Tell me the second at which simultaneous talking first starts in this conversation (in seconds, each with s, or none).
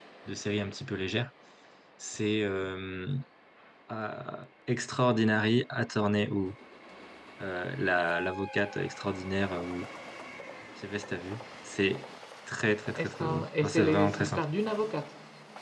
13.0 s